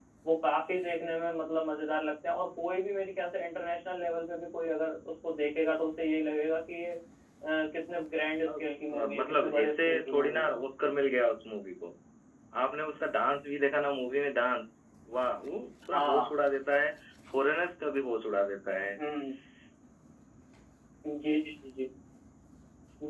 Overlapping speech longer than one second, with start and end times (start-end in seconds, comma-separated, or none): 8.5-10.5